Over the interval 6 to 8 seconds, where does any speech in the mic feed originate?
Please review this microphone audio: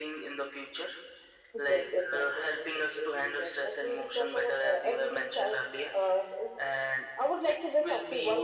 echo only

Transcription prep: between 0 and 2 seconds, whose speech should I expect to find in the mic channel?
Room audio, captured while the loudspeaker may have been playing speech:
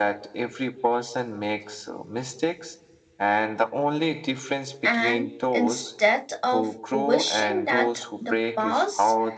echo only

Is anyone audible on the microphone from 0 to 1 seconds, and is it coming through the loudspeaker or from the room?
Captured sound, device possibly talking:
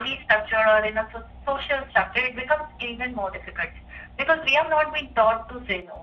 echo only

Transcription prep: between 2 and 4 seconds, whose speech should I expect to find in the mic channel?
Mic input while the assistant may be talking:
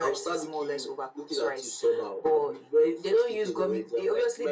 echo only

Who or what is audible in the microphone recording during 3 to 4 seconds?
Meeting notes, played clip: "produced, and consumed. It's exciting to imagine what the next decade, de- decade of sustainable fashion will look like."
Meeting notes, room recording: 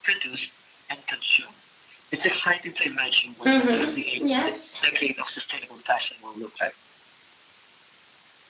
both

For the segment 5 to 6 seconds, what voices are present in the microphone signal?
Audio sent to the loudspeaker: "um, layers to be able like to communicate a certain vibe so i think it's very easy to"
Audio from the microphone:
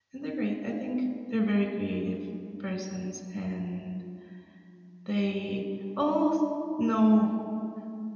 user only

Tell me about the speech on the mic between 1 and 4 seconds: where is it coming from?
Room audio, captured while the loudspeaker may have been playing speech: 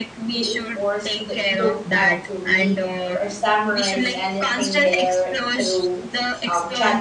both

